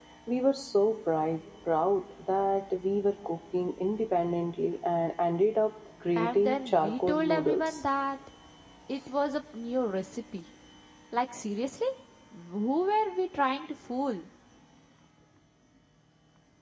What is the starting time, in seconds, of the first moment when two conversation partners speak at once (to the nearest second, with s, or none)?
6 s